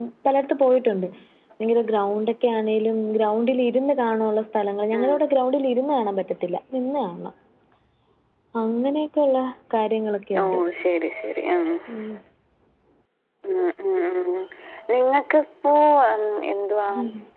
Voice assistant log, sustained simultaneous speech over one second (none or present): none